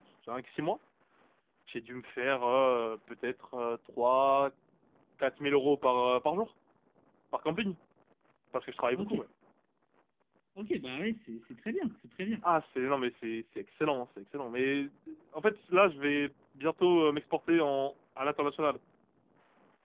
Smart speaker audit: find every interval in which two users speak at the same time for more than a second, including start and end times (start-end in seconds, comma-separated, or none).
none